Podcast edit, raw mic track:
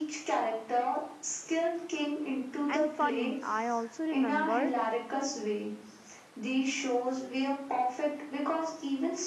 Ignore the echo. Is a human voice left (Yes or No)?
Yes